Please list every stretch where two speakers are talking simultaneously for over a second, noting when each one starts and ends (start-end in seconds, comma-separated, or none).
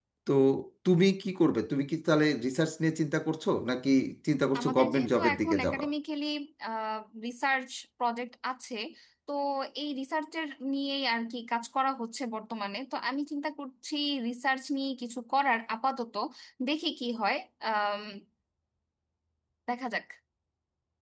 4.6-5.8